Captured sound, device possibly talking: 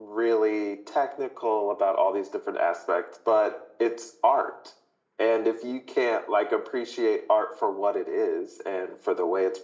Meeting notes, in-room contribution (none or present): none